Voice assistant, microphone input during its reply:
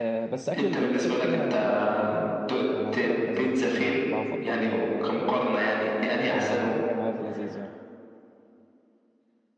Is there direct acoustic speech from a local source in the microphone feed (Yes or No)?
Yes